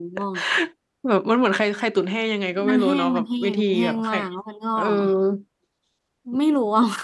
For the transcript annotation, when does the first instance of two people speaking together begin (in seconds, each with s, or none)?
2.7 s